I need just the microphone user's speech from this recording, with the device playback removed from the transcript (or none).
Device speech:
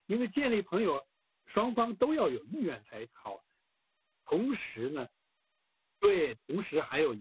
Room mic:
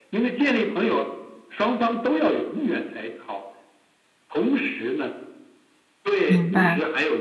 明白。